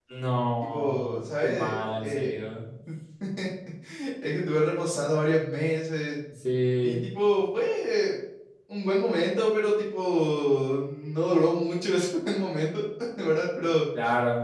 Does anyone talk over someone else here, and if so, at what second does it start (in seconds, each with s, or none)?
0.7 s